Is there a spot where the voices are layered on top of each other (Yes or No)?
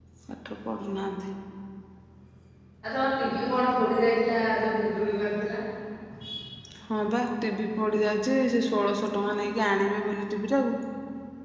No